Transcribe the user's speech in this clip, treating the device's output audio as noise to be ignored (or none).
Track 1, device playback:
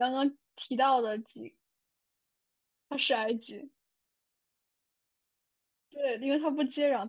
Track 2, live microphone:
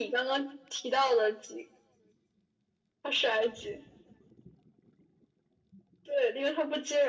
none